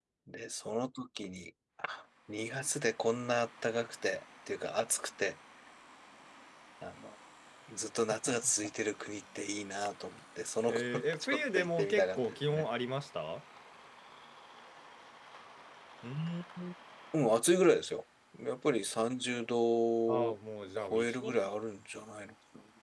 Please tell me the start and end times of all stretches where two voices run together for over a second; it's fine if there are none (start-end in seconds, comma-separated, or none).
10.7-12.6